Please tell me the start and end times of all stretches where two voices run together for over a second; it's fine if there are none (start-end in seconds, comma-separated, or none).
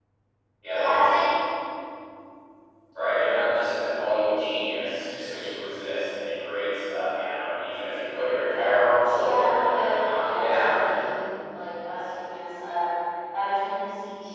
9.1-11.0